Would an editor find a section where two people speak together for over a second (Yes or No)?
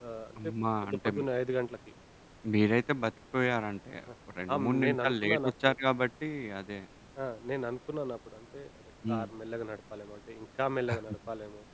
Yes